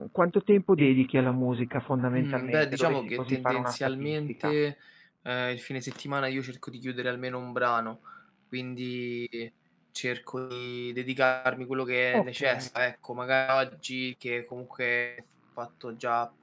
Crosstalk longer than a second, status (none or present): present